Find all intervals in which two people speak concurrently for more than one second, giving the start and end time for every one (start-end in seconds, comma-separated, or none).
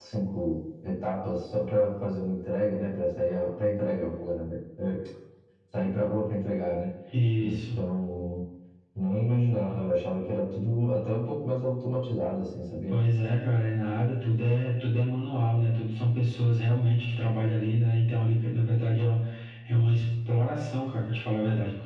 none